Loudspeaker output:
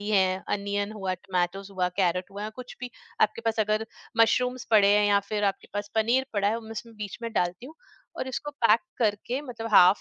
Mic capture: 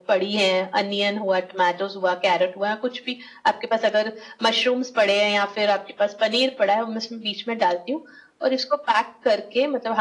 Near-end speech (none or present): none